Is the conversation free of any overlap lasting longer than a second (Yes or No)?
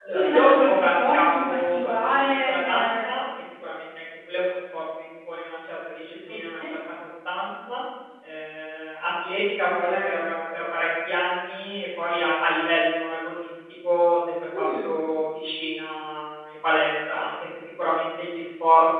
No